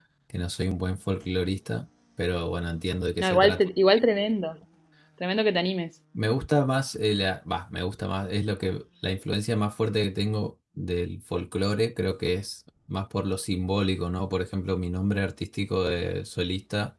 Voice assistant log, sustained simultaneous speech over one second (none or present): none